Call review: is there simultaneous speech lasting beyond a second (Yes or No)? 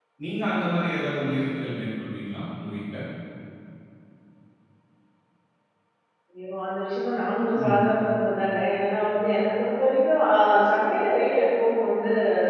No